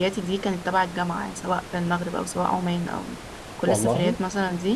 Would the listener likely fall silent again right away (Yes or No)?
Yes